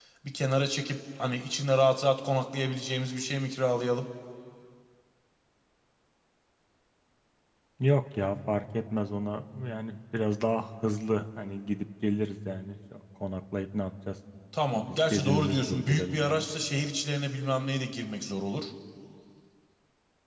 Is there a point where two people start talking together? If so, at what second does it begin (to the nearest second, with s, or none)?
15 s